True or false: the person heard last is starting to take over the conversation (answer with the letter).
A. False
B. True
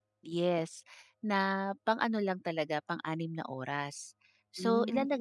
A